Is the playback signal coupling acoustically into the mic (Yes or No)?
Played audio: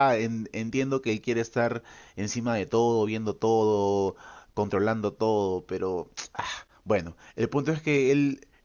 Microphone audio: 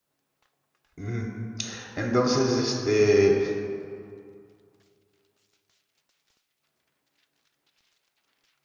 No